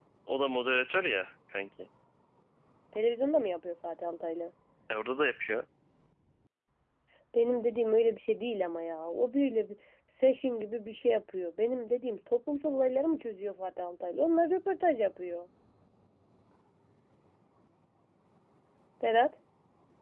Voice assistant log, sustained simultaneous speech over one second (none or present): none